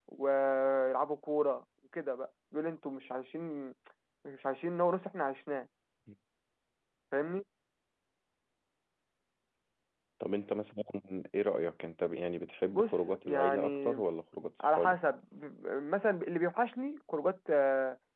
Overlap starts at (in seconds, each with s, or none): 12.7 s